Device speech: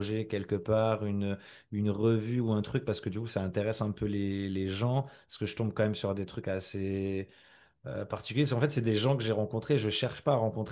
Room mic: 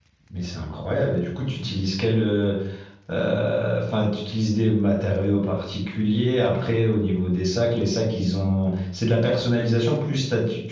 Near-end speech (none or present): present